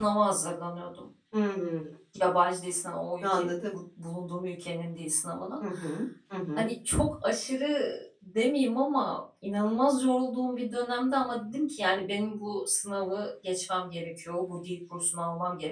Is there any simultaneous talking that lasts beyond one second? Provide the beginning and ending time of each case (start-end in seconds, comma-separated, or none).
none